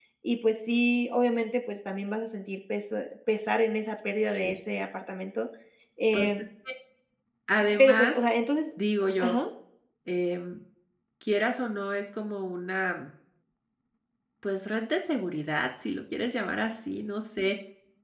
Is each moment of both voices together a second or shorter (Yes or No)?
Yes